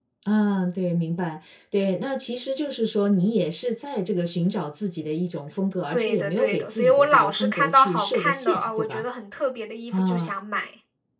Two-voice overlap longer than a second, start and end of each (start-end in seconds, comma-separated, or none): 5.9-9.0